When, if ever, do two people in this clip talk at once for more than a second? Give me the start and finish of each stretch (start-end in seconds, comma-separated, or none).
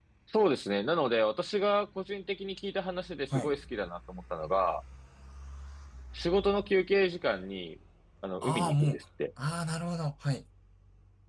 none